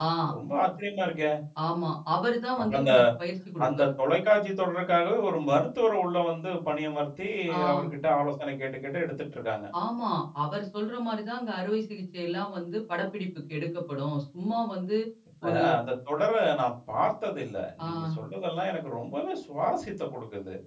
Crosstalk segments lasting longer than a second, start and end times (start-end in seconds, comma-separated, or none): none